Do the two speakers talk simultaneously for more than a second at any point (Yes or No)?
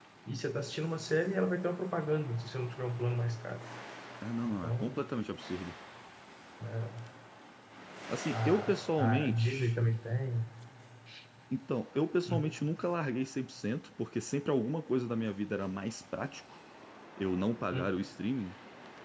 Yes